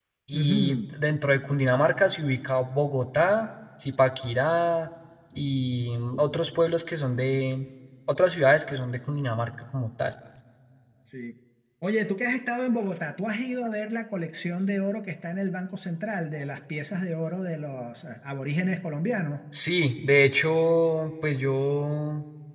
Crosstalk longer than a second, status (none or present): none